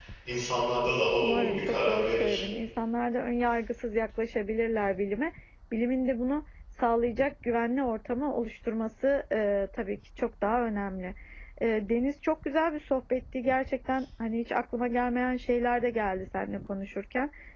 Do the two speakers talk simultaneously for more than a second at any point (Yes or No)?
Yes